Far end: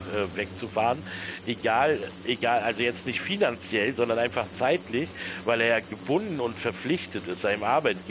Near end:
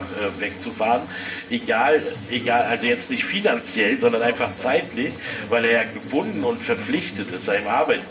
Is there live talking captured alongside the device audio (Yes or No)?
Yes